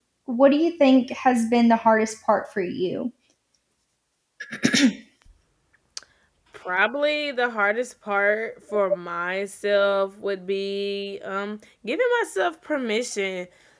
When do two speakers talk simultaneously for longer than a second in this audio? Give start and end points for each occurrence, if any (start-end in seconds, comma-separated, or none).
none